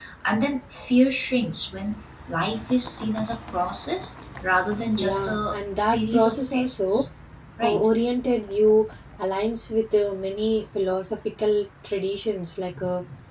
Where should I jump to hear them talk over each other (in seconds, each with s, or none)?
5.0 s